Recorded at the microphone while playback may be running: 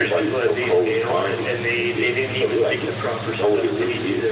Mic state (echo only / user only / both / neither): echo only